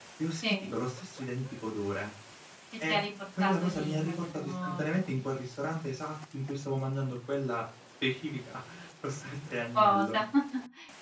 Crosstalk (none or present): present